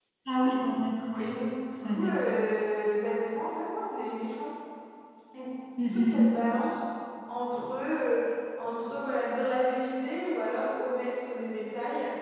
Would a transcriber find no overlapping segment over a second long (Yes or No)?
Yes